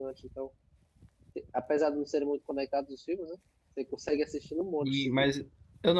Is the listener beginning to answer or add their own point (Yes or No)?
Yes